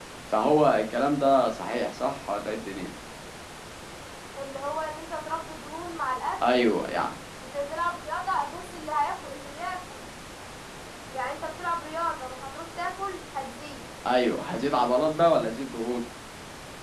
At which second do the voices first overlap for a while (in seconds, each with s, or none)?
none